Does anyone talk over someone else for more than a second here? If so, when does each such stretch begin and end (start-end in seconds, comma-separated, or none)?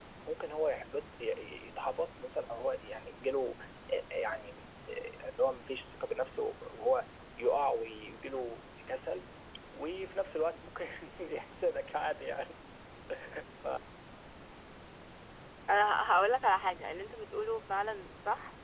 none